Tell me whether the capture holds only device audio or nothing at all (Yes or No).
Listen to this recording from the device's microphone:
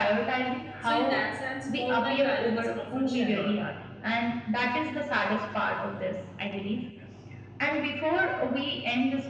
No